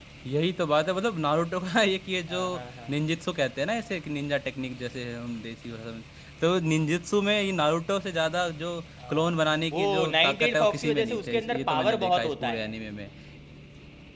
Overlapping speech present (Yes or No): Yes